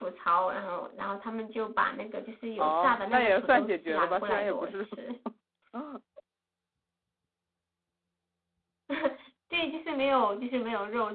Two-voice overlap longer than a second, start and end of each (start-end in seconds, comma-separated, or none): 2.6-4.9